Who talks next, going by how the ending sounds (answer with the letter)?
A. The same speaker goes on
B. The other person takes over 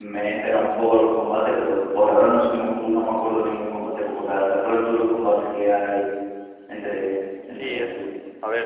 B